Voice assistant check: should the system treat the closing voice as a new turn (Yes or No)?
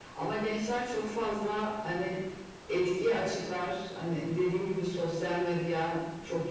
No